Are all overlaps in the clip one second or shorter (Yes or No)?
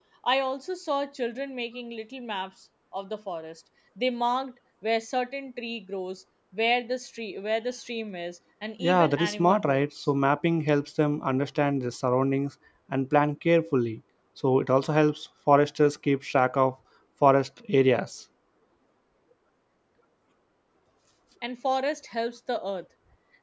No